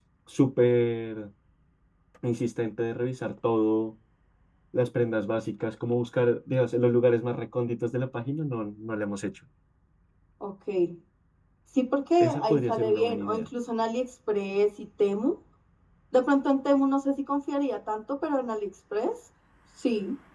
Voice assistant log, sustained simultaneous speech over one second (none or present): present